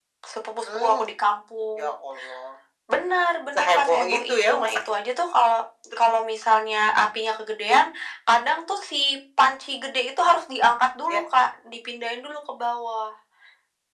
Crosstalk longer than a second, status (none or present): present